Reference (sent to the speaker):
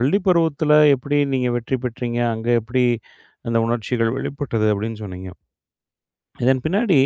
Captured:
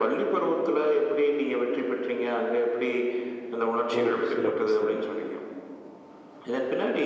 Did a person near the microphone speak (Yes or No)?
Yes